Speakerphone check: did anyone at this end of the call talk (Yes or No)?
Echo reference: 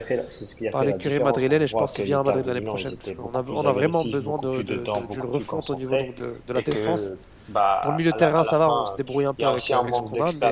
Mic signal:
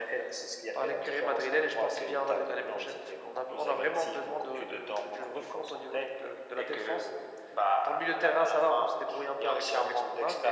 No